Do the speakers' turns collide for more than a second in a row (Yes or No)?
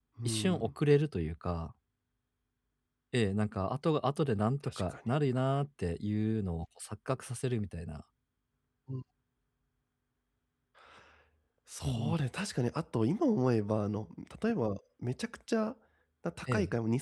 No